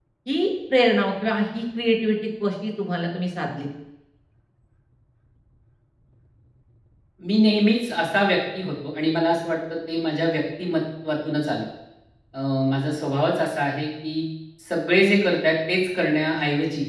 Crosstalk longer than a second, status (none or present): none